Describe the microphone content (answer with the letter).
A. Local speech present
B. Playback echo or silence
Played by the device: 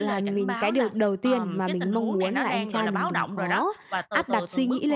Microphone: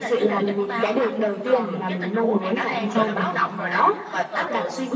B